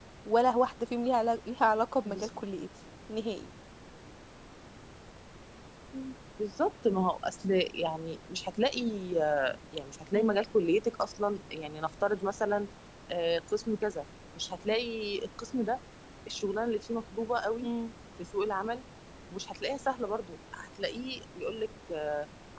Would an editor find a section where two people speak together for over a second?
No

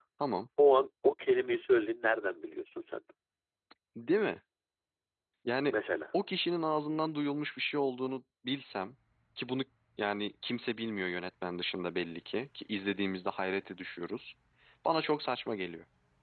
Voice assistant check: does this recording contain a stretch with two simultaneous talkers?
No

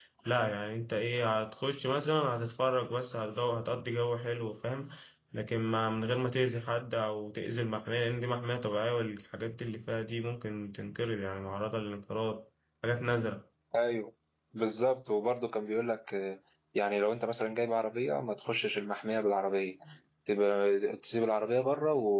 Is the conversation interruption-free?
Yes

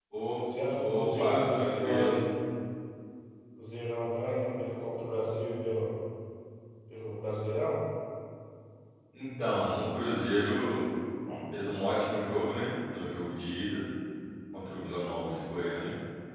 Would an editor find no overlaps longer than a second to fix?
No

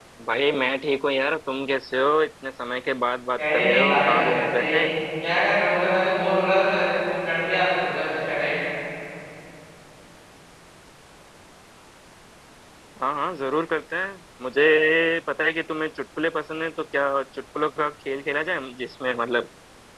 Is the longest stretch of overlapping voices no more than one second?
No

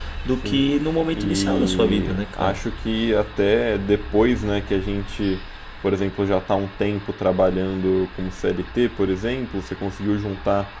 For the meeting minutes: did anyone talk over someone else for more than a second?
Yes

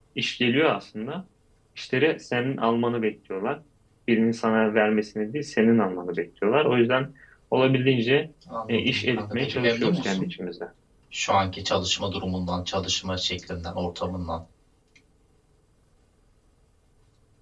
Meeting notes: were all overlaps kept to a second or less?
No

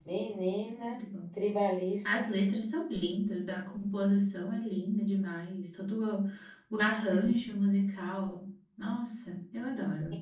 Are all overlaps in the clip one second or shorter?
Yes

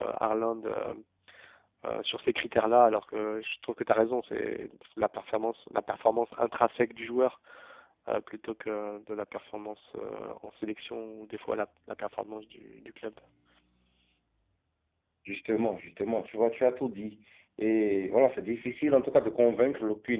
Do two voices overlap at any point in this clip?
No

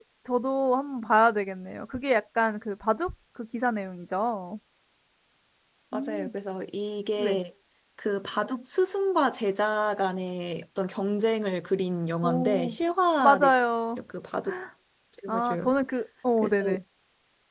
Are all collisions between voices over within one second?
Yes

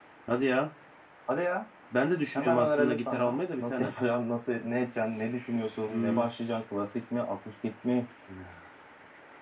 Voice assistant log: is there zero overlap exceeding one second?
No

